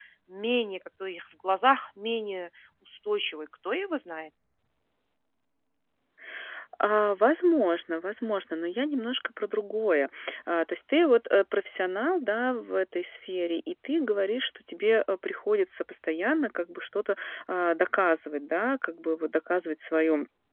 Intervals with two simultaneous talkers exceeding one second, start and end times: none

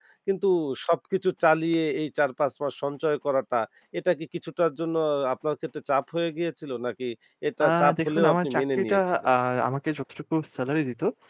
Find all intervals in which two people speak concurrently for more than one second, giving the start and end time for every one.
7.6-9.3

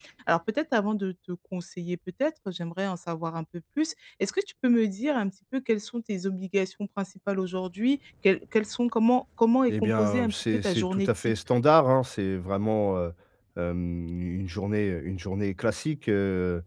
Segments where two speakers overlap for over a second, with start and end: 9.7-11.3

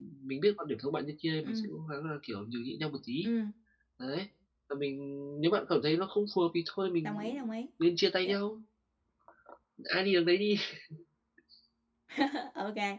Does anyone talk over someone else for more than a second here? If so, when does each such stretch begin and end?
none

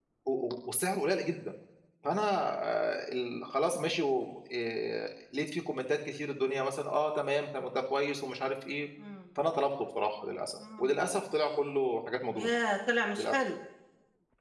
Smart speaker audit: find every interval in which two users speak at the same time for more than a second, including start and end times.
none

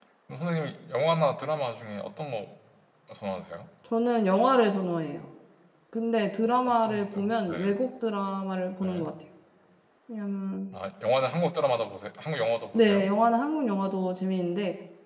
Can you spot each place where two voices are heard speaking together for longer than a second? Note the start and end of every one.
6.4-7.7

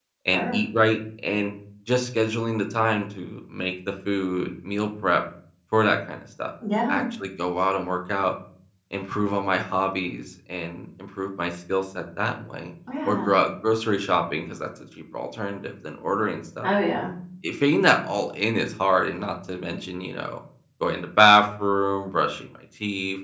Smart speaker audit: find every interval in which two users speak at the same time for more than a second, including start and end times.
none

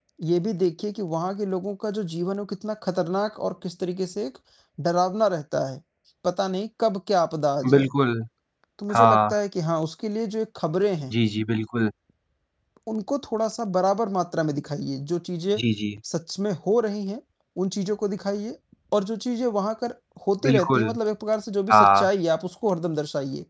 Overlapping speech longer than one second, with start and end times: none

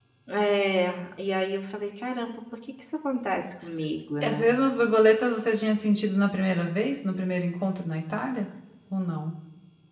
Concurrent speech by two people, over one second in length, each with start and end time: none

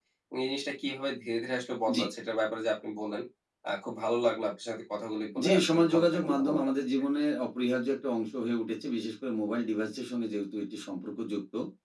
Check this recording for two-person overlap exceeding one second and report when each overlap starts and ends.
5.4-6.7

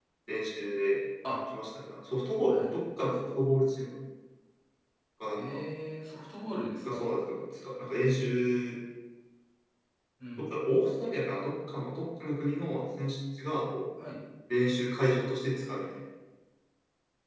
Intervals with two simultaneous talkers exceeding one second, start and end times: none

